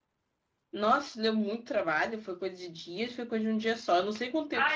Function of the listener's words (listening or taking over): taking over